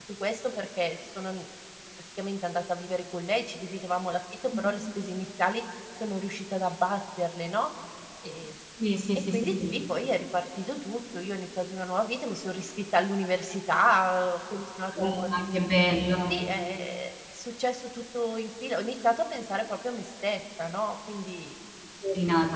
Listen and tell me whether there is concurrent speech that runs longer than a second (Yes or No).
No